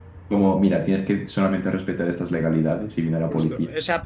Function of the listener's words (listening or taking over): taking over